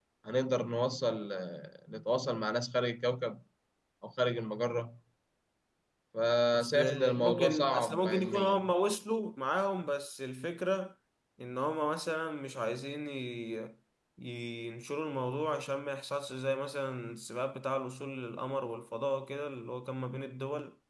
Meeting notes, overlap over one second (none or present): present